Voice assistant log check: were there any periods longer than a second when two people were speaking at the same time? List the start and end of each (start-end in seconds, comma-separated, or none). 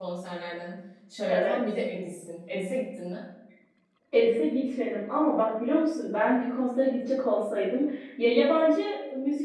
none